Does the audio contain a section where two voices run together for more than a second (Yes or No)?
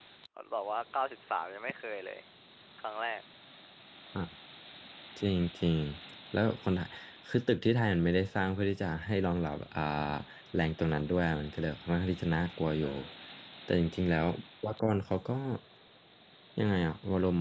No